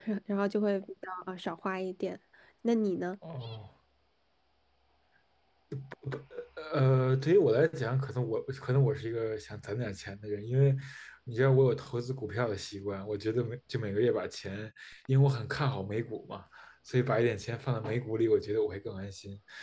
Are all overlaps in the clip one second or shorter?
Yes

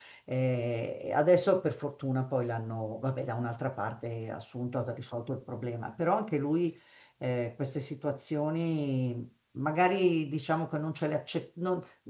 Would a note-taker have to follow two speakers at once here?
No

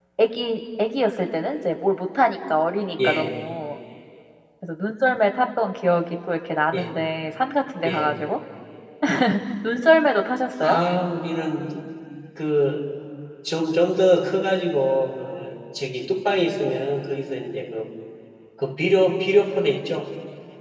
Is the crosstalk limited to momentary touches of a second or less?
Yes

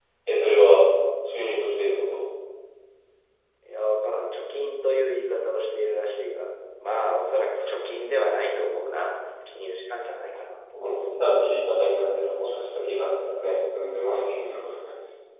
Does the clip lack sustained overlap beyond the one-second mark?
Yes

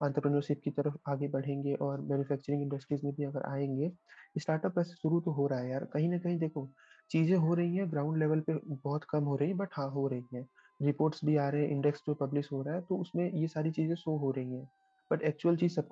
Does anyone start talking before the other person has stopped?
No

